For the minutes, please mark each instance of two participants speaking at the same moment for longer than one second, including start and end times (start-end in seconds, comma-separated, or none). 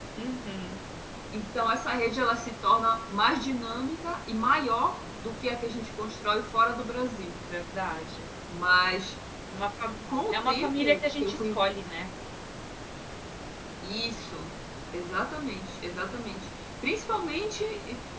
10.3-11.6